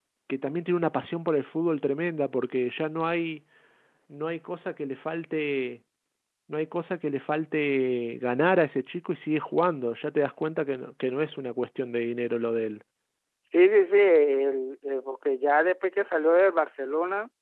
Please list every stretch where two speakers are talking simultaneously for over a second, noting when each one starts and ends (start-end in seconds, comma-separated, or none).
none